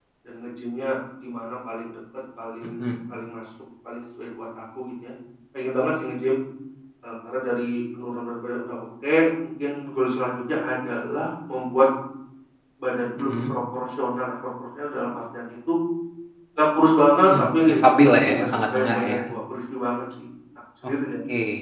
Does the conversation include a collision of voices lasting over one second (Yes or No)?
Yes